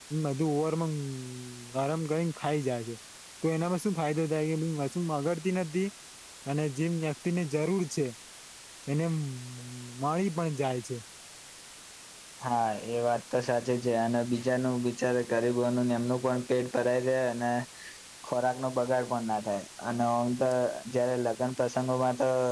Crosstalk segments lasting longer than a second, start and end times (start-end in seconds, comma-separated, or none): none